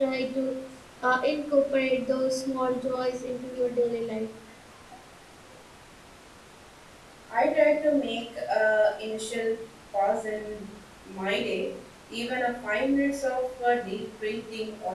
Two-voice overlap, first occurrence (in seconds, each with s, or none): none